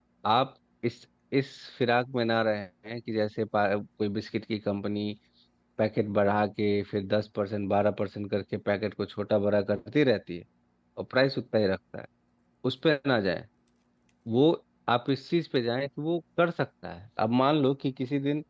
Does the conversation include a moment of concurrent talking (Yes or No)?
No